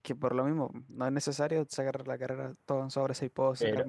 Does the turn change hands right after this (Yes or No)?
Yes